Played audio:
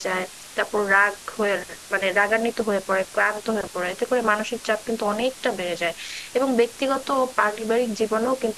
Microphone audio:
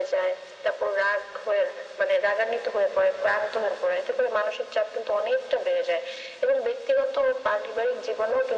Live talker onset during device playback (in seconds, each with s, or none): none